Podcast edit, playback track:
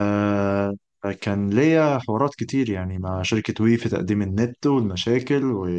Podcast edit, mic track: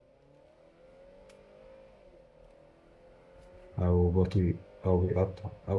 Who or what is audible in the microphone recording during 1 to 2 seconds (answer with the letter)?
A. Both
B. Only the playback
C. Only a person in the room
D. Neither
D